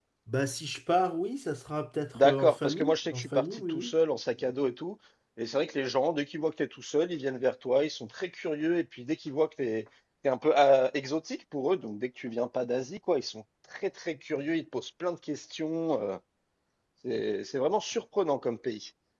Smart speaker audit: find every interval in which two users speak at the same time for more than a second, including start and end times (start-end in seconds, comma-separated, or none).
2.1-3.9